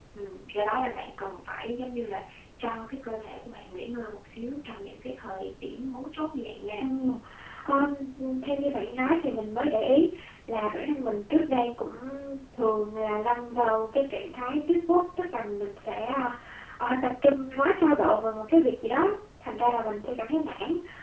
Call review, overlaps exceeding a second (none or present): none